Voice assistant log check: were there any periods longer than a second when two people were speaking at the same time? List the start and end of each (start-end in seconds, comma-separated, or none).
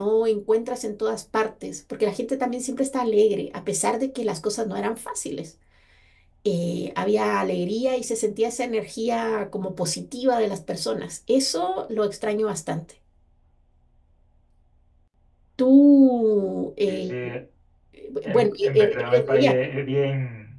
18.2-19.5